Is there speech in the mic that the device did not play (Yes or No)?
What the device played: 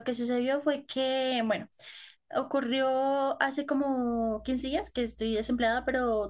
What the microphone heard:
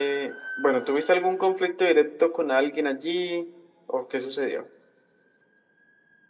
Yes